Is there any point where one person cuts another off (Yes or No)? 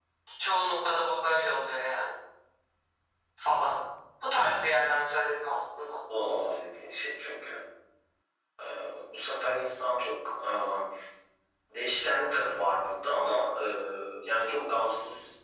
No